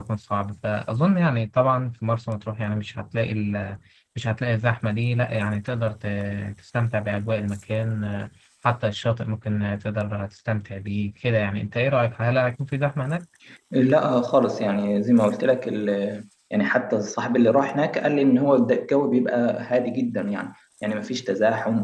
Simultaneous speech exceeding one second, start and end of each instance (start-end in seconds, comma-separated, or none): none